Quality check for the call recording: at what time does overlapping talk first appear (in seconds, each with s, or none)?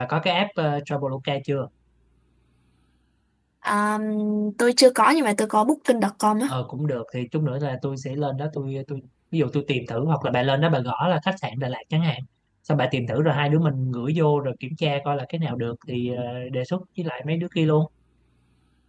none